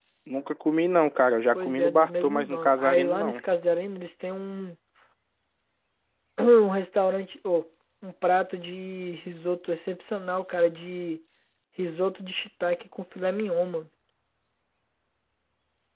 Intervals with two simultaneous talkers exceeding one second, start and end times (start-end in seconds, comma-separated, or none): 1.5-3.4